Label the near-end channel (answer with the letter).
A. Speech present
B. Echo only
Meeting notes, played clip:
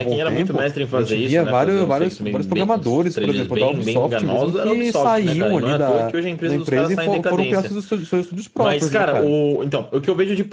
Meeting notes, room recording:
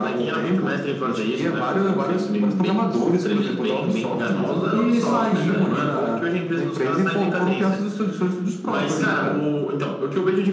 B